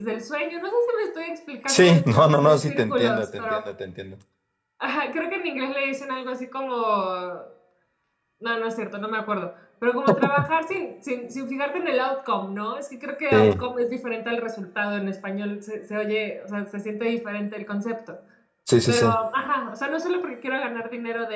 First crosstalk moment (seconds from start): 1.7 s

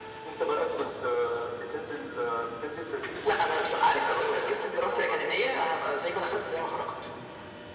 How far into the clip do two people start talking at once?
3.2 s

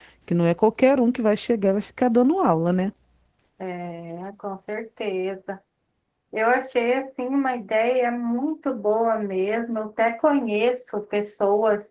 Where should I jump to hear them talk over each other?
none

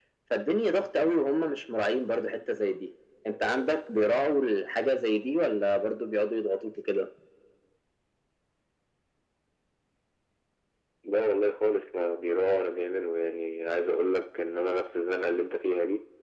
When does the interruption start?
none

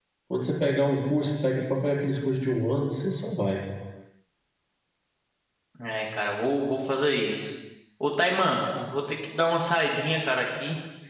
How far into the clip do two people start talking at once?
none

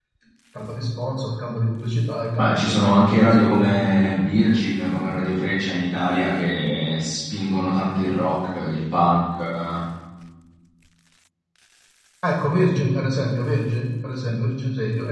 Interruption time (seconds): 2.4 s

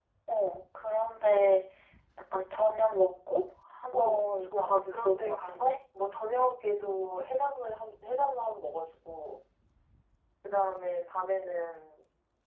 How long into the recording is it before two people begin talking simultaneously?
3.9 s

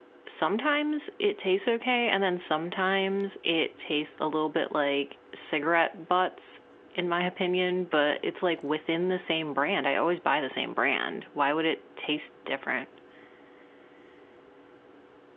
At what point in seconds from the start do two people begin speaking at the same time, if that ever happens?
none

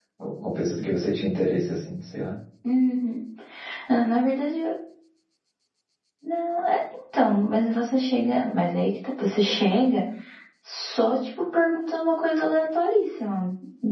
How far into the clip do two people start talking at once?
none

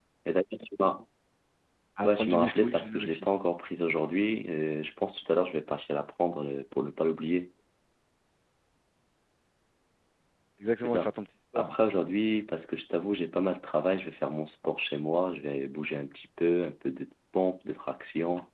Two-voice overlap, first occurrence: 2.0 s

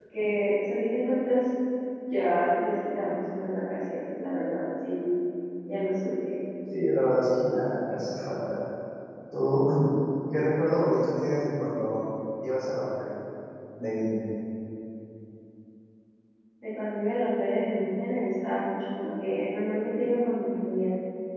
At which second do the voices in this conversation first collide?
none

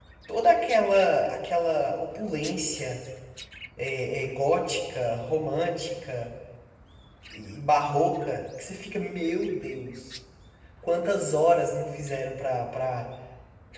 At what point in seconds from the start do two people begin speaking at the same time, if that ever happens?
none

